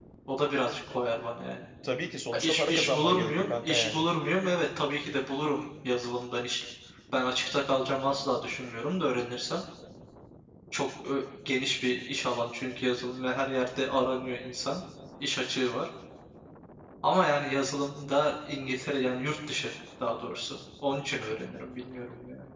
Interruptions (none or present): present